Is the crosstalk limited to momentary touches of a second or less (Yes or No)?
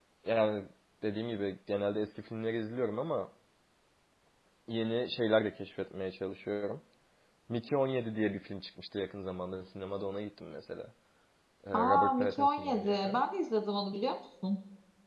No